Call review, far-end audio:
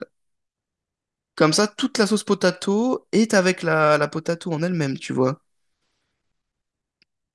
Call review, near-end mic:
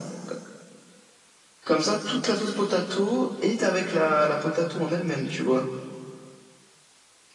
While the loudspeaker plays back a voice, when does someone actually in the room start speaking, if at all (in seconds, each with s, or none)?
none